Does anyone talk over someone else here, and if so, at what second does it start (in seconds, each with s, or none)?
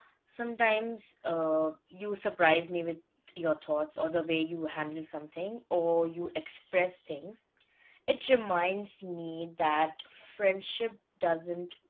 none